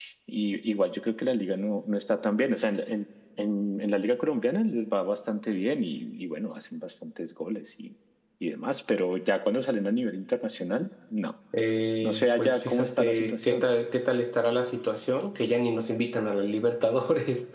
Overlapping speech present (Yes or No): Yes